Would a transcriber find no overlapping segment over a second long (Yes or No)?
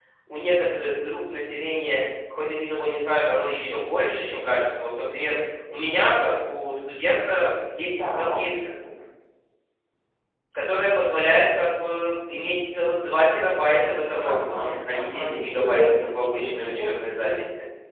No